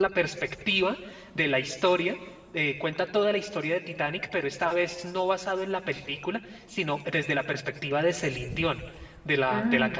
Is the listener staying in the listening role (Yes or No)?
Yes